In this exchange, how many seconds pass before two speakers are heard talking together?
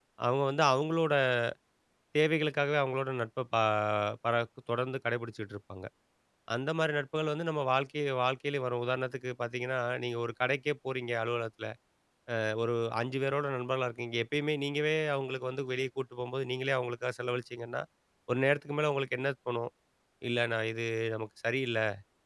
none

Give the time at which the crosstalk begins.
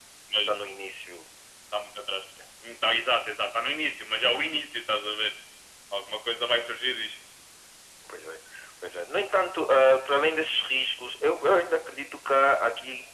none

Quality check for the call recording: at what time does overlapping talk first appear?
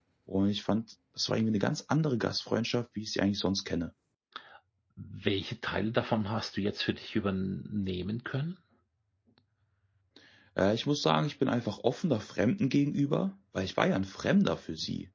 none

